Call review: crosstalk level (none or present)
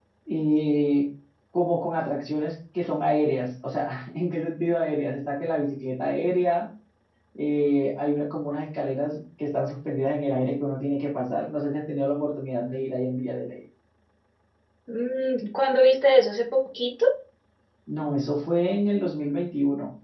none